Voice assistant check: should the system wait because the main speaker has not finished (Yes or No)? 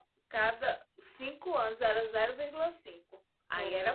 No